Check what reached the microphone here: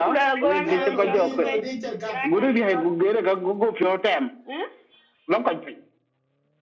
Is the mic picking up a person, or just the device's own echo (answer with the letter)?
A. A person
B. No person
A